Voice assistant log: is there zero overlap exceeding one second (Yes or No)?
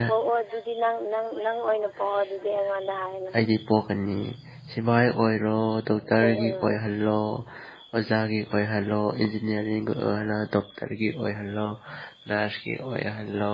Yes